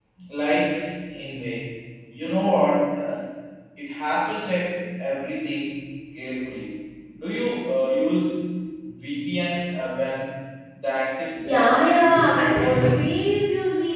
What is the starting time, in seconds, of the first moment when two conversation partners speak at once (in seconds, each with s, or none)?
11.4 s